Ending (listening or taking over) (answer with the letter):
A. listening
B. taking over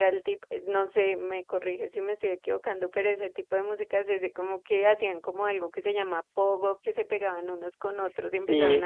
A